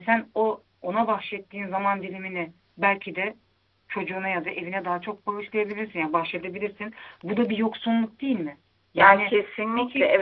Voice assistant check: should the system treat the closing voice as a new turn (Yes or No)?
Yes